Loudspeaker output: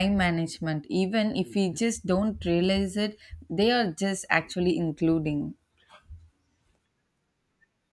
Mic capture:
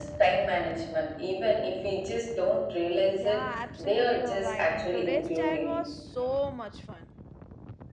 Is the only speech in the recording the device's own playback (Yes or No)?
No